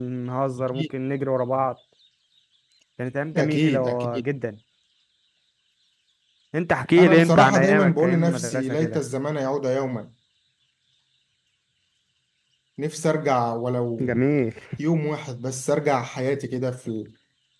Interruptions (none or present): present